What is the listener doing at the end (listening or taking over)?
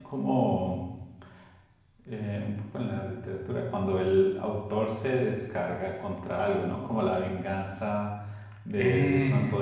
listening